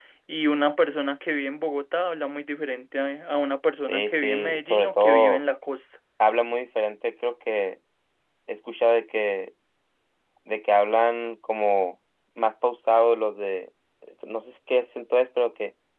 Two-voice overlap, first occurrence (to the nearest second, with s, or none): 4 s